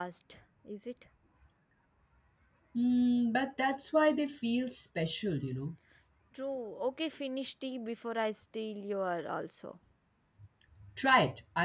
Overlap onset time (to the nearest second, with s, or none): none